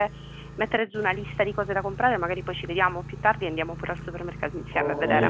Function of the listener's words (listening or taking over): taking over